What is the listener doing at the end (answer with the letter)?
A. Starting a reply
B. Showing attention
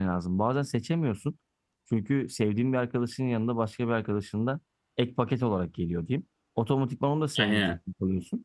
B